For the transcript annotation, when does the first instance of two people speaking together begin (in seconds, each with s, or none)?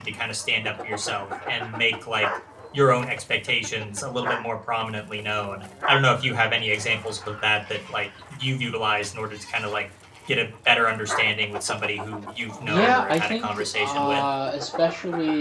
12.7 s